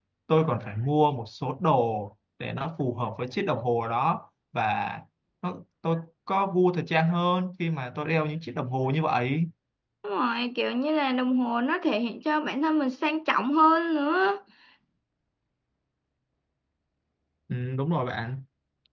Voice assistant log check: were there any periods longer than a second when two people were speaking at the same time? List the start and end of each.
none

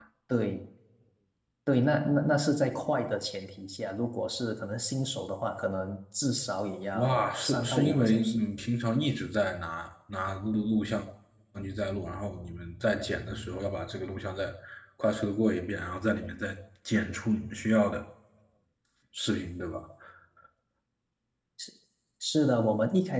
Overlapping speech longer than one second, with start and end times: 6.9-8.4

